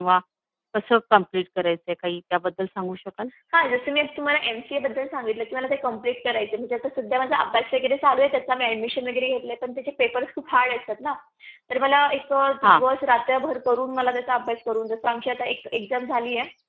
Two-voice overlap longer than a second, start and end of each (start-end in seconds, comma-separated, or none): none